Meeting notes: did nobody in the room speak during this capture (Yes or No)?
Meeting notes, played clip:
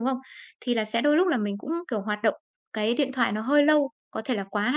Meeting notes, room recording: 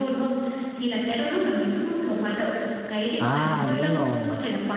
No